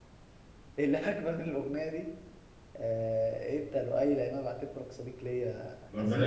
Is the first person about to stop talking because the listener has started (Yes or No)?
Yes